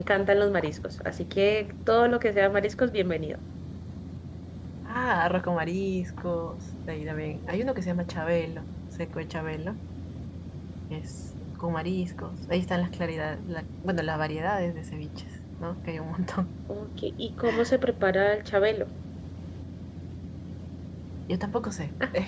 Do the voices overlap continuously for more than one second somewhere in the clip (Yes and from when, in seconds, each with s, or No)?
No